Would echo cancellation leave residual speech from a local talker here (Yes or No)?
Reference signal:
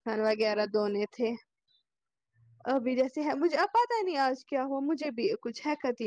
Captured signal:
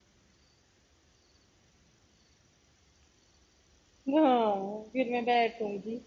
Yes